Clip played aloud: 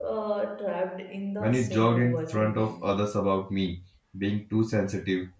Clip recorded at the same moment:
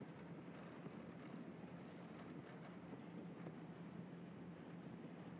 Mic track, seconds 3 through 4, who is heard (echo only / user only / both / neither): neither